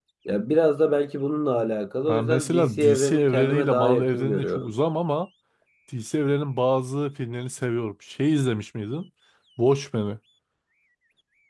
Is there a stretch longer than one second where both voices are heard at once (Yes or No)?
Yes